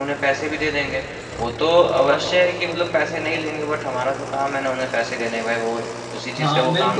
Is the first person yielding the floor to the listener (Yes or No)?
Yes